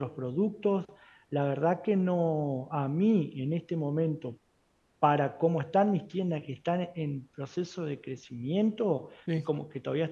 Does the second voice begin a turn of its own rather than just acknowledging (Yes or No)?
No